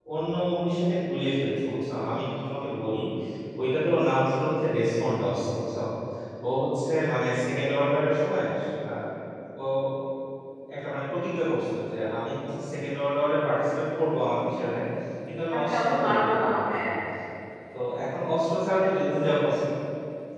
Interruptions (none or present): present